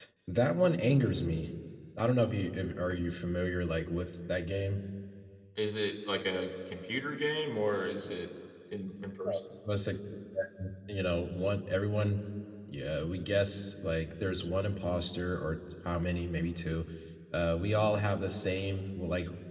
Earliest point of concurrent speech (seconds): none

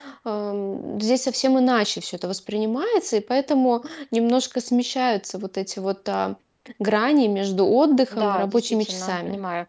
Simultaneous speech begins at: 8 s

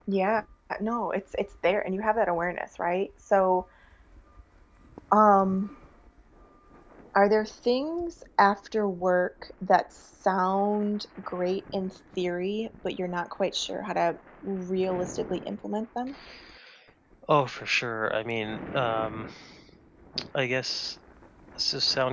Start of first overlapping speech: none

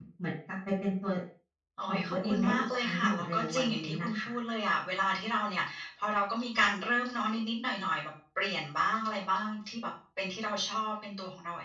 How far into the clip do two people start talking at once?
2 s

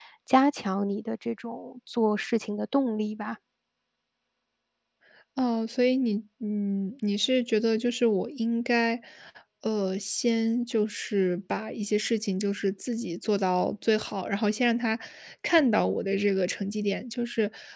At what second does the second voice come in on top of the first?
none

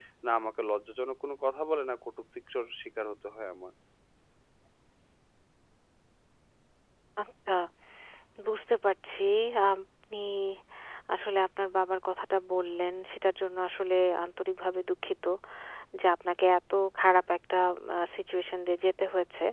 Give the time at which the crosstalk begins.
none

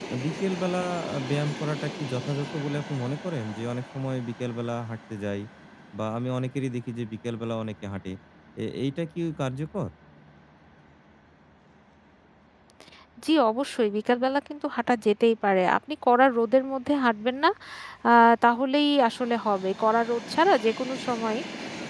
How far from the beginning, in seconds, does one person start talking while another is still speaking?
none

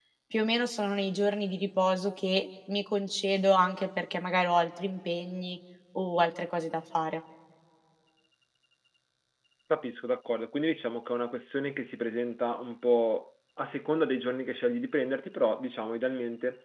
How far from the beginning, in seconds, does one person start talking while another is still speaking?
none

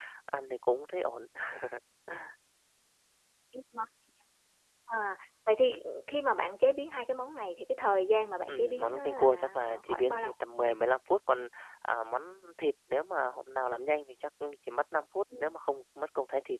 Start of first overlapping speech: 8 s

